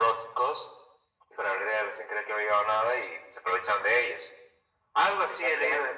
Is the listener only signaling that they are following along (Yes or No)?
Yes